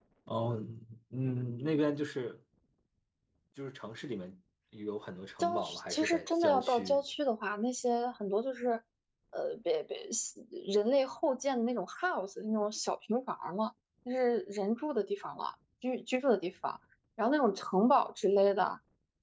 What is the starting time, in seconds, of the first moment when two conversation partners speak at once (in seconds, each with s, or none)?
5.4 s